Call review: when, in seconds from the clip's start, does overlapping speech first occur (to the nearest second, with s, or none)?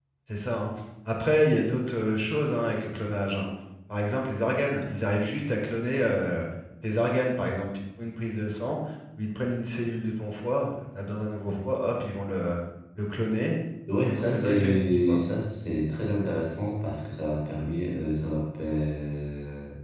14 s